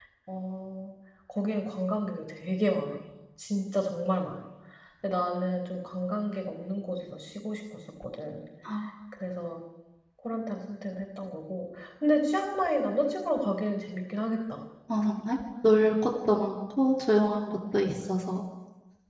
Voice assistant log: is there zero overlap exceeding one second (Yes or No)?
Yes